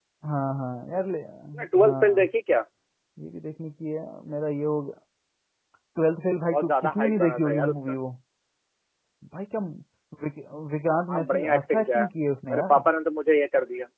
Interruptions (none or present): present